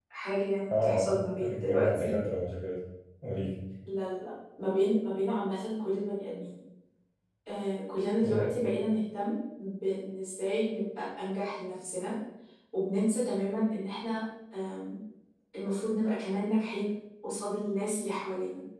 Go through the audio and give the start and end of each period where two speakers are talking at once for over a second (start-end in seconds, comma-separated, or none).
0.7-2.1